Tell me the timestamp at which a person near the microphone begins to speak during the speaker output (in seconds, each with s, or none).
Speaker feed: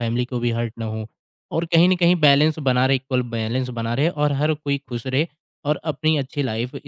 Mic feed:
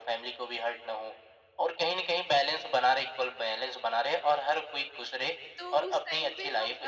5.6 s